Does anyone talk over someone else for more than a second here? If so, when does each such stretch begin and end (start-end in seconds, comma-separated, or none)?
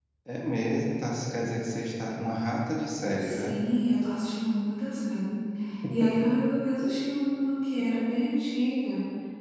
none